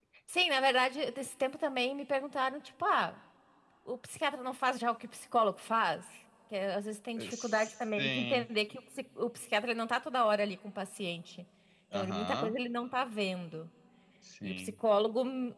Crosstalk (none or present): present